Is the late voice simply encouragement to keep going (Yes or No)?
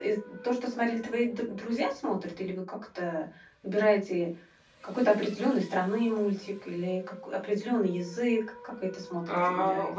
No